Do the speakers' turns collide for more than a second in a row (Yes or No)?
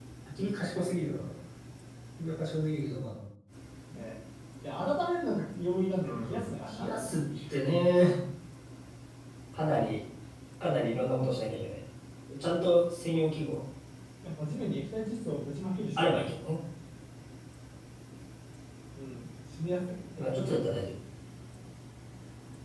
Yes